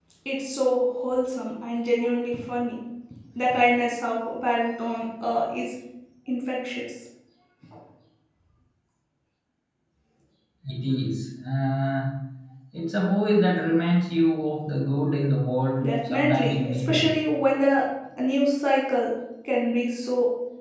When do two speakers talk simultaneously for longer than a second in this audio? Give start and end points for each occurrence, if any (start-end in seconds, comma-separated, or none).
15.8-17.1